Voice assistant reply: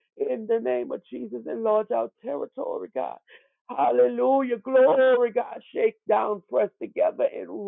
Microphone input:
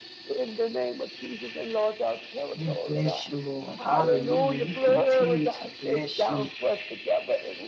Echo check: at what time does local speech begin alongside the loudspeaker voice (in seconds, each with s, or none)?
2.5 s